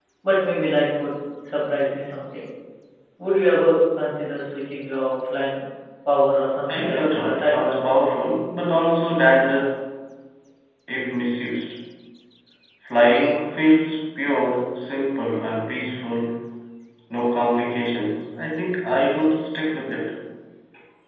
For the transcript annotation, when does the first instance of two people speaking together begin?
6.7 s

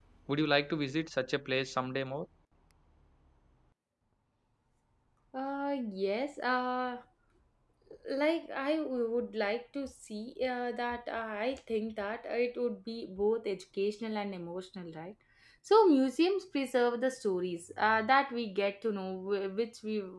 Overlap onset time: none

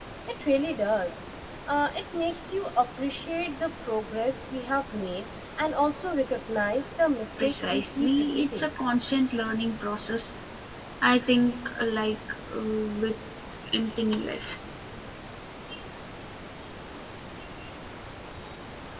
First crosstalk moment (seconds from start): 7.4 s

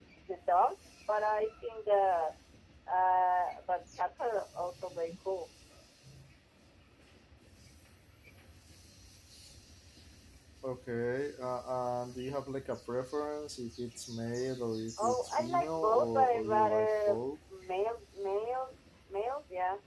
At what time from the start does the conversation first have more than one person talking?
15.0 s

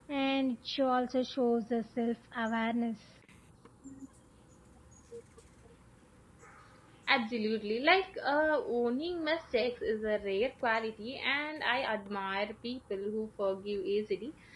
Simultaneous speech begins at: none

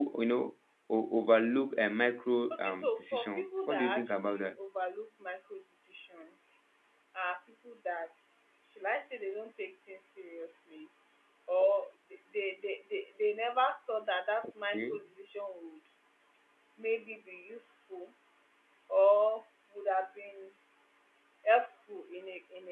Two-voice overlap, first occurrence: 2.5 s

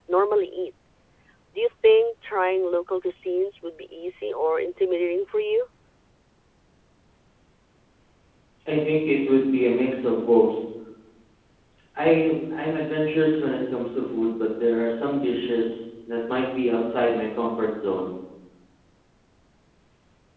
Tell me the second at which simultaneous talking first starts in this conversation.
none

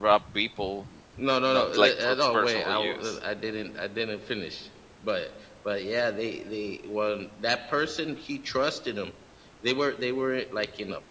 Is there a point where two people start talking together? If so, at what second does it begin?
1.5 s

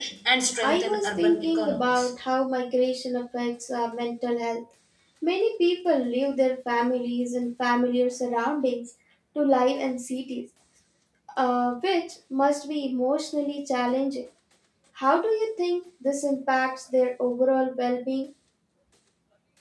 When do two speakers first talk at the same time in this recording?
0.6 s

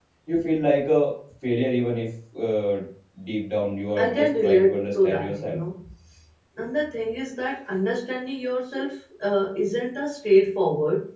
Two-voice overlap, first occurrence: 4.0 s

